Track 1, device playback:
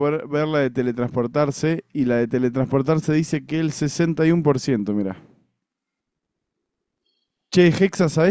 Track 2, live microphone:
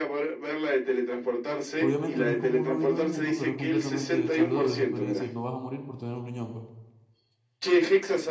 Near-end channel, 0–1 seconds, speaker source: echo only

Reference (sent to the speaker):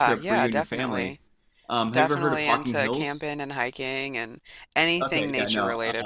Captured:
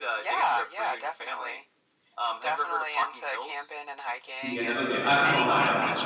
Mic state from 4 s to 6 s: both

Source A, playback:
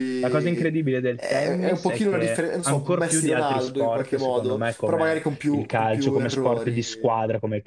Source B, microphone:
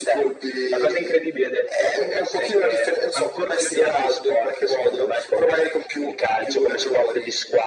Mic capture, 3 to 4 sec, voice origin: echo only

